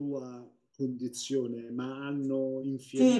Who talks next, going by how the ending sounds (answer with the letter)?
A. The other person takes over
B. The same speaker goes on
A